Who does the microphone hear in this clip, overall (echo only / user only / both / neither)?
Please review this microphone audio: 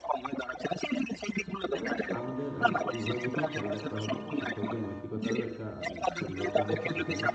both